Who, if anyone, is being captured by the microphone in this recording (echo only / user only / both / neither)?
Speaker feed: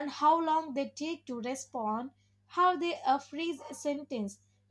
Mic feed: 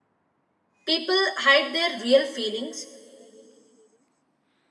user only